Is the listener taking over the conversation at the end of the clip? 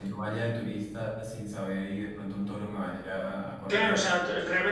Yes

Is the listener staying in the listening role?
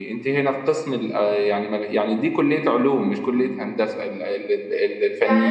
No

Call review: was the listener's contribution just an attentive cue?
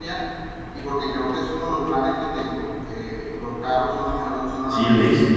No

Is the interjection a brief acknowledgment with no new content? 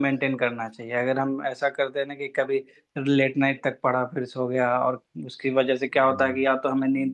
Yes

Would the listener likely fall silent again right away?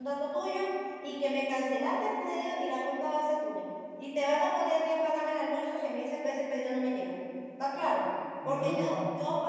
Yes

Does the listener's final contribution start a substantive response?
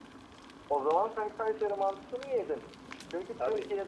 No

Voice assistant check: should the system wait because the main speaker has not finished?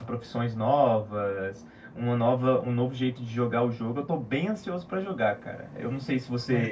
Yes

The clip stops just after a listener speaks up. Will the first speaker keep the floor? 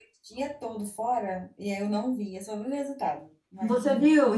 No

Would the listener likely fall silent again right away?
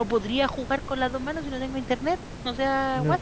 No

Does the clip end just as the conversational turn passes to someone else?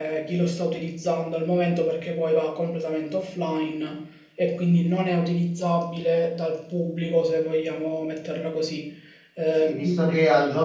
Yes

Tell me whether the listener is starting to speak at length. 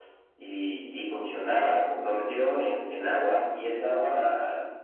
No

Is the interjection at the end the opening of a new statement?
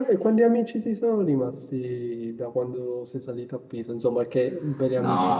Yes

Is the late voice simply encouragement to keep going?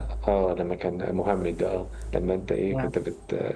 Yes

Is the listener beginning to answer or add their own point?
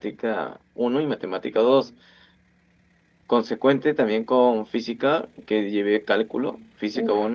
No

